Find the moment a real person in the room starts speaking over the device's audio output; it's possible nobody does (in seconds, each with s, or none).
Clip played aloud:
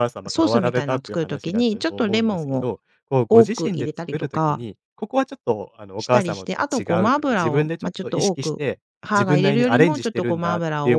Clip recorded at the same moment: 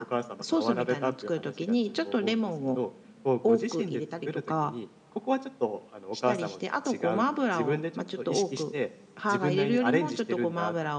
none